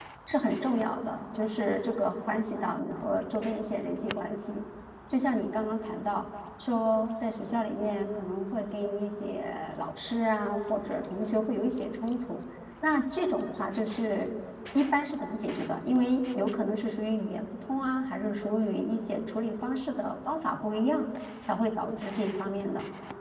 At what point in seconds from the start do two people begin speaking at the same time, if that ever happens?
none

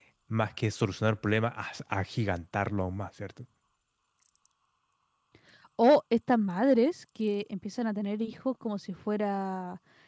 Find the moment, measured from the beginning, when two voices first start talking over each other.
none

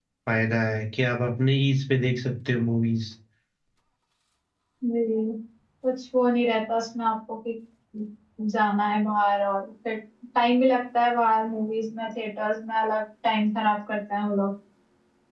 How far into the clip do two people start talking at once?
none

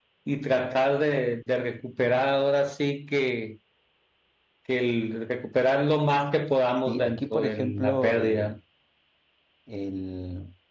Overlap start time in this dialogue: 6.9 s

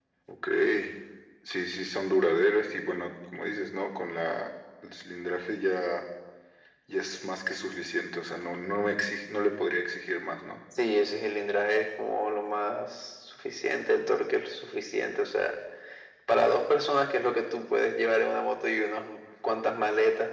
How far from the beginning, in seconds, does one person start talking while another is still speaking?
none

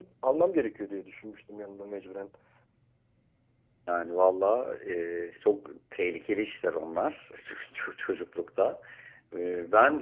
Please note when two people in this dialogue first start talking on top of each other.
none

